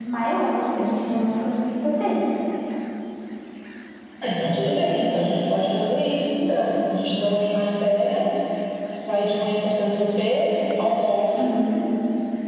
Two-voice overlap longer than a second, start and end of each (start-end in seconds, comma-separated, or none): none